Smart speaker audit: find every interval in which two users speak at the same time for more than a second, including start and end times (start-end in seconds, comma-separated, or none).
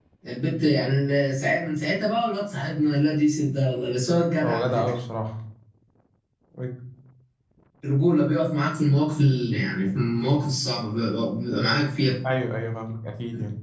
none